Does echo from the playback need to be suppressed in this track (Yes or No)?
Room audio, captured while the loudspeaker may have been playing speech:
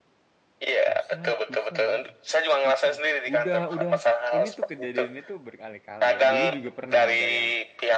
Yes